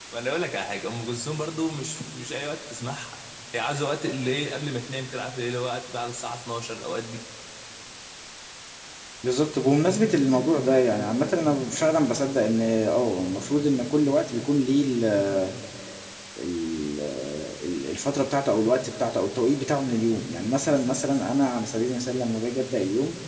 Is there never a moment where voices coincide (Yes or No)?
Yes